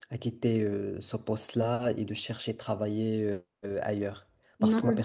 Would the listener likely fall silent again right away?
Yes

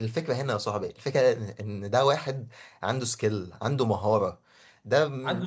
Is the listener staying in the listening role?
No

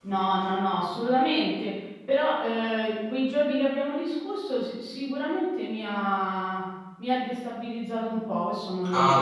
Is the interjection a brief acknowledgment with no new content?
No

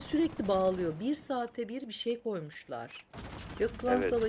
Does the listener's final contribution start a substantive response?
No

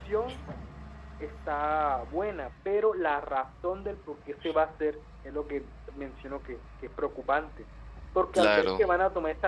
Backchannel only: Yes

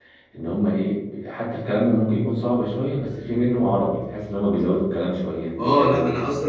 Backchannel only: No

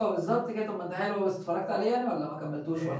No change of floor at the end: No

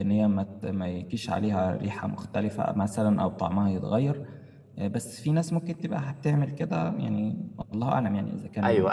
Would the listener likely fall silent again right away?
No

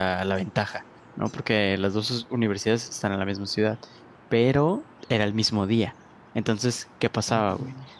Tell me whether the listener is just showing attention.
Yes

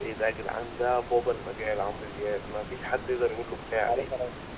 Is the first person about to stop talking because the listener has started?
Yes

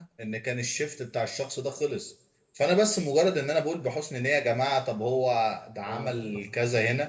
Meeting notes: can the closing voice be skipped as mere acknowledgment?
Yes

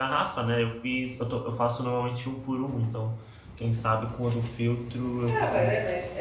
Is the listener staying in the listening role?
No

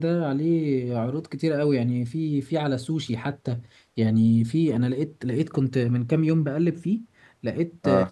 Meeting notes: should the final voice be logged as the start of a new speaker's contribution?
No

